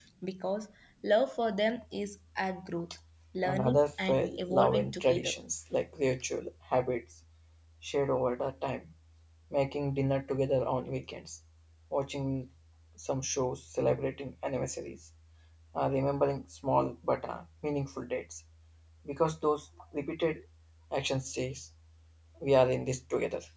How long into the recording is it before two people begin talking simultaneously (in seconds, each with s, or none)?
3.4 s